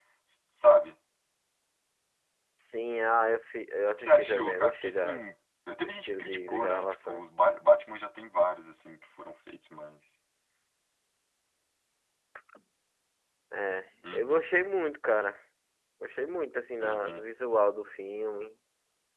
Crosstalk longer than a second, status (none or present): present